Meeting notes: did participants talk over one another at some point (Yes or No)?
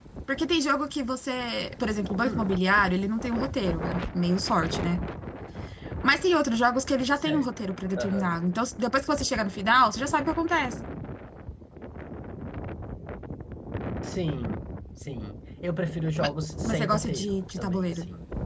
Yes